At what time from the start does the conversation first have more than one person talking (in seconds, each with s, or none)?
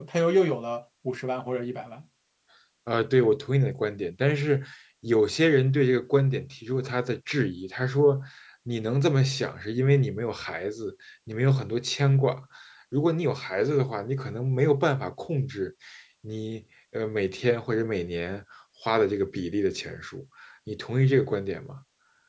none